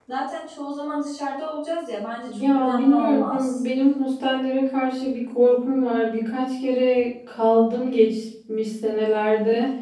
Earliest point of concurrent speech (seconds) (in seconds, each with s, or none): 2.3 s